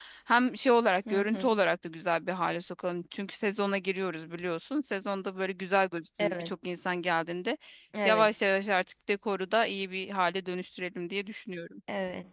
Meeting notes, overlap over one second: none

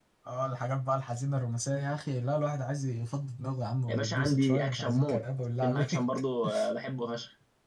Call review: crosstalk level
present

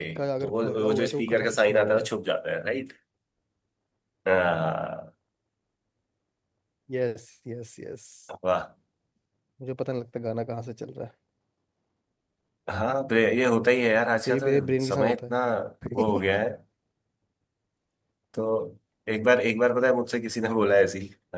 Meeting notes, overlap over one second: present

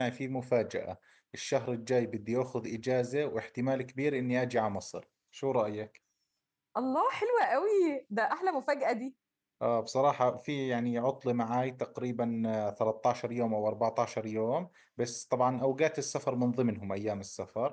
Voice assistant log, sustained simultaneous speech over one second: none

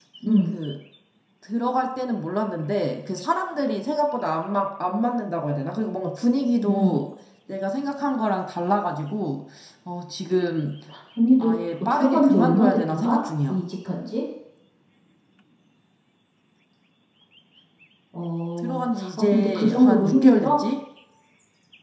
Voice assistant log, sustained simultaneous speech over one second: present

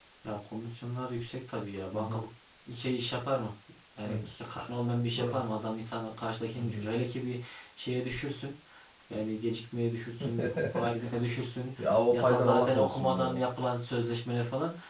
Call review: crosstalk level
present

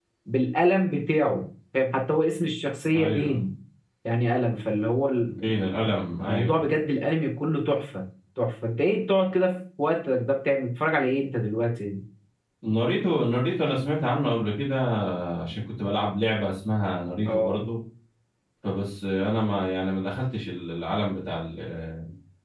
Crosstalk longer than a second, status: none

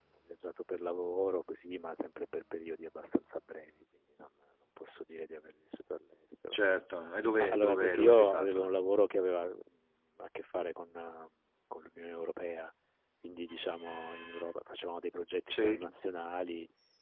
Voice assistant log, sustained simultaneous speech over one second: present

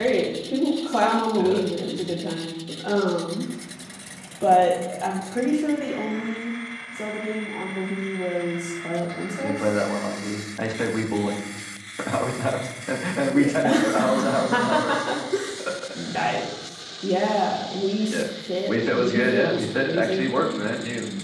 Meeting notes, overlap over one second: present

